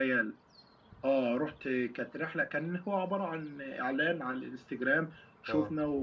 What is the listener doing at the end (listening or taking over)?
listening